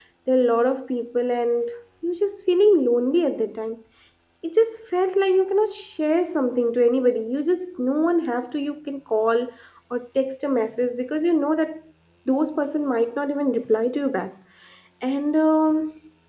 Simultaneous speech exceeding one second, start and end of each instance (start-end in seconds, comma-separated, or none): none